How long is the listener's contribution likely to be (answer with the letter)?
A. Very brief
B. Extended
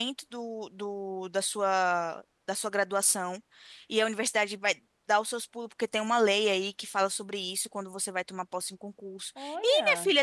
A